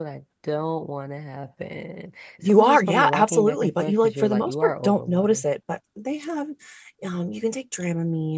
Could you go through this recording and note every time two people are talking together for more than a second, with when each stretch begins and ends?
2.4-5.4

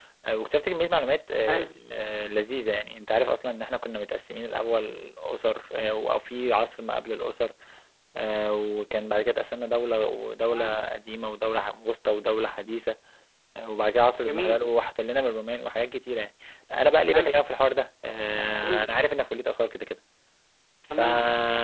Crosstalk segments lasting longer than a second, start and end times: none

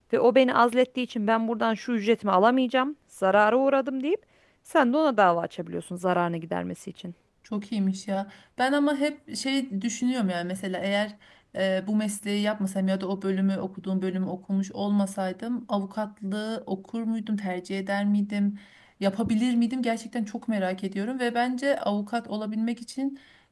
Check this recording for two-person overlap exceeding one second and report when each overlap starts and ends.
none

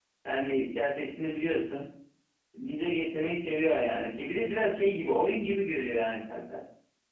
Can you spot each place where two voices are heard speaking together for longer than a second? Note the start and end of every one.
none

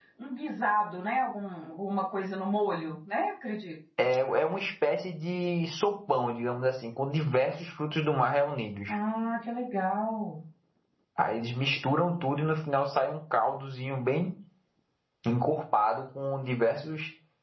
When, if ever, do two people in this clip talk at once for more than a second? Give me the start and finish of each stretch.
none

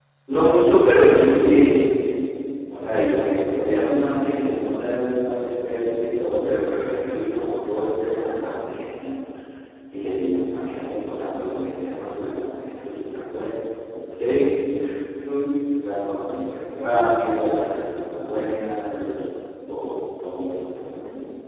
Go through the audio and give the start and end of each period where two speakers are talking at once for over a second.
none

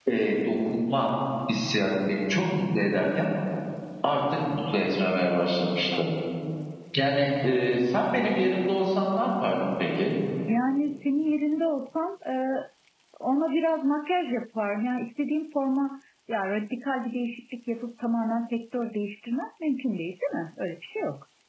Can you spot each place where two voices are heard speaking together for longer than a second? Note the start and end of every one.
none

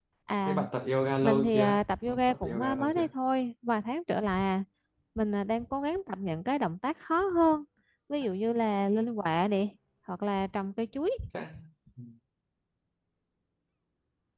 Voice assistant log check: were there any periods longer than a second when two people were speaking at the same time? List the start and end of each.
1.2-3.0

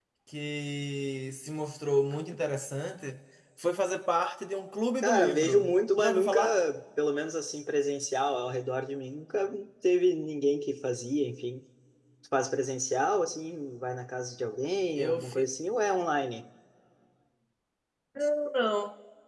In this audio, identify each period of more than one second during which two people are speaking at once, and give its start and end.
5.0-6.4

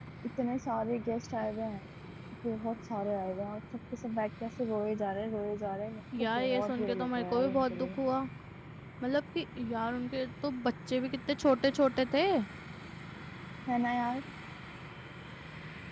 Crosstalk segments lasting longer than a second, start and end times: 6.2-7.9

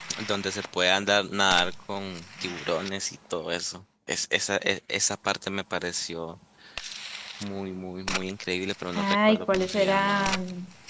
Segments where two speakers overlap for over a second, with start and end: 8.9-10.4

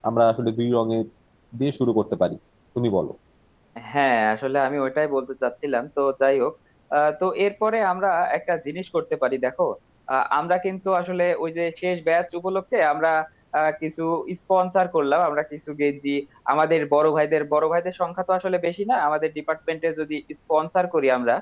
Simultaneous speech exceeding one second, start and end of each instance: none

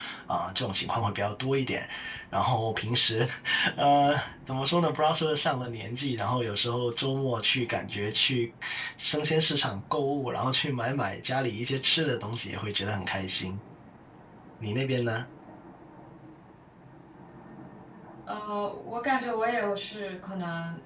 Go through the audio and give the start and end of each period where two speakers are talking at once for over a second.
none

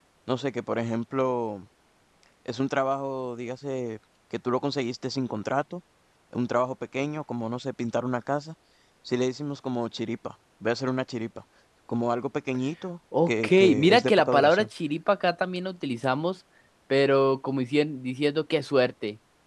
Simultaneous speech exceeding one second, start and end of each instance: 13.3-14.7

